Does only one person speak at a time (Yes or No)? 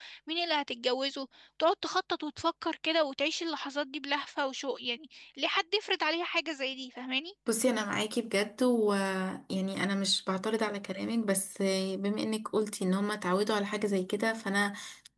Yes